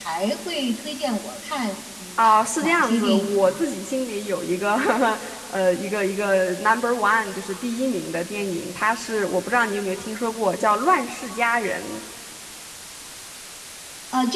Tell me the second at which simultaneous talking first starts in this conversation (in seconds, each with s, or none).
2.2 s